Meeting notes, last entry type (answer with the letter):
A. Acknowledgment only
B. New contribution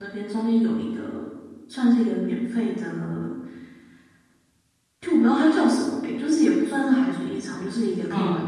A